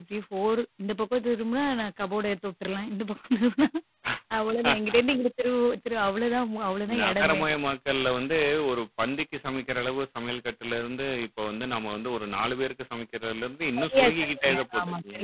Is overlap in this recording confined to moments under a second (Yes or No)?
No